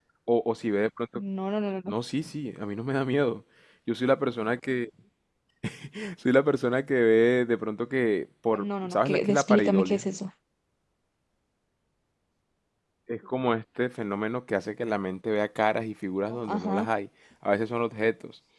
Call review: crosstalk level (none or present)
present